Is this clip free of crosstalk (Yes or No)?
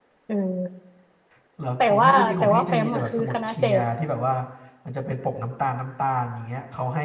No